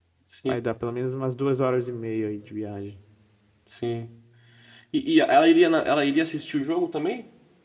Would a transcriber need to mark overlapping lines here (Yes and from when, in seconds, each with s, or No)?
No